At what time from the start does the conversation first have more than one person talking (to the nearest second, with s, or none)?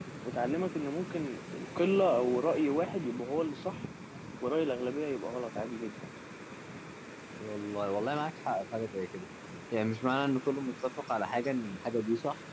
none